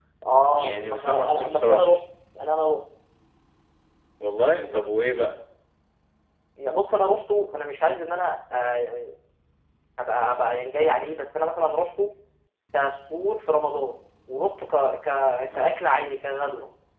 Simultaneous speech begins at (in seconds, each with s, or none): 0.6 s